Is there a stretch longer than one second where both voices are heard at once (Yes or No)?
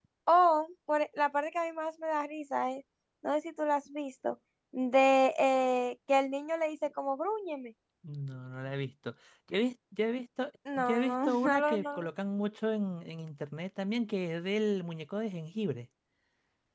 Yes